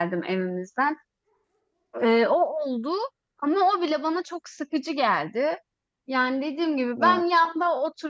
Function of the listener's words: listening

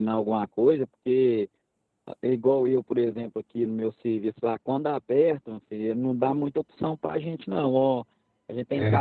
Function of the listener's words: listening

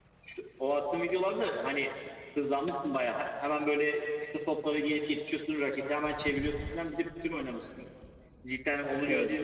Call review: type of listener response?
listening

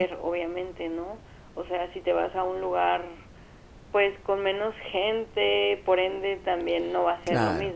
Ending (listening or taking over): listening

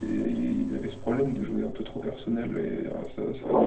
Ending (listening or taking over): taking over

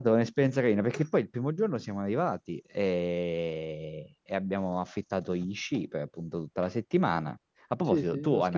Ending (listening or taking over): taking over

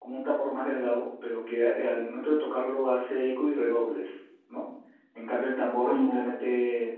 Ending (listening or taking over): listening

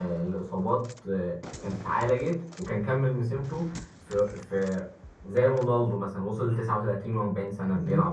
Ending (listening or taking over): taking over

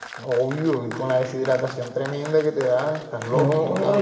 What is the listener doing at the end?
taking over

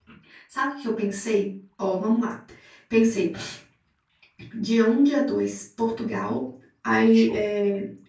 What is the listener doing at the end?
listening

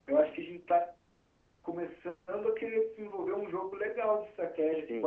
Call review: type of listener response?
taking over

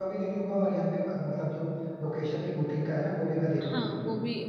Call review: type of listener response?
taking over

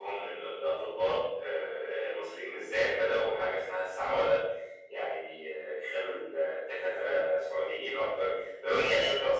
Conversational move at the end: listening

